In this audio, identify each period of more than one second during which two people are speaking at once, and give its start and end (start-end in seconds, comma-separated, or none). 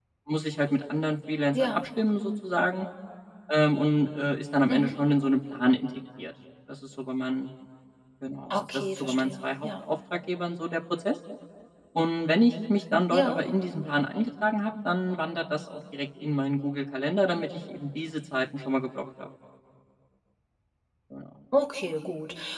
8.5-9.8